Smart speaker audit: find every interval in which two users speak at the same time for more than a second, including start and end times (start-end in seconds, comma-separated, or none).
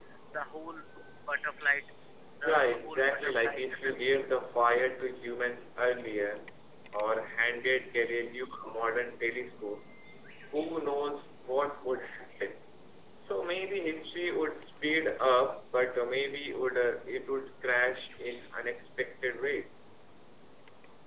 2.4-4.3